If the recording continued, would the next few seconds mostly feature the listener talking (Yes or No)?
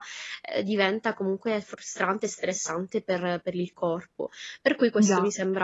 No